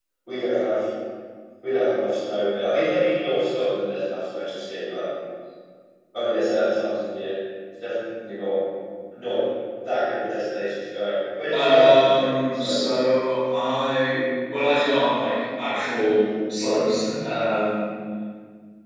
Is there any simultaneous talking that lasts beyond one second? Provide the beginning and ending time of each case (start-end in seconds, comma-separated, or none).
11.5-13.0